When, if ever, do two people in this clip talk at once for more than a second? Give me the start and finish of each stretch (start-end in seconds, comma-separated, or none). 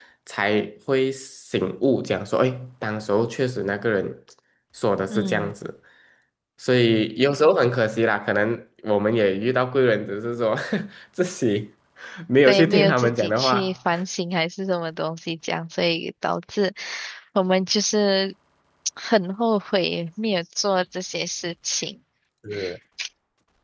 12.4-13.7